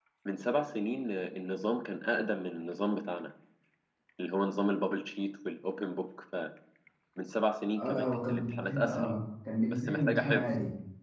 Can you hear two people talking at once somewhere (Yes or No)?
Yes